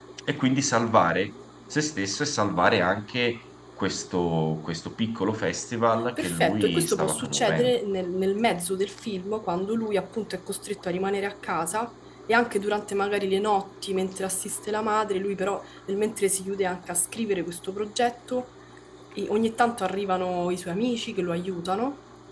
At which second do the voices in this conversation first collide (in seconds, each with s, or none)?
6.2 s